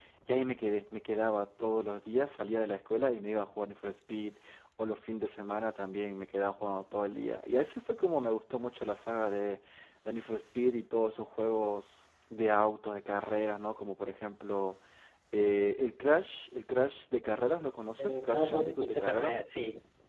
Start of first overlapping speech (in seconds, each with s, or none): 18.0 s